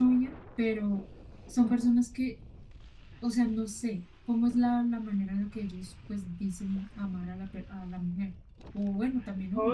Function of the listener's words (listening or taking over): taking over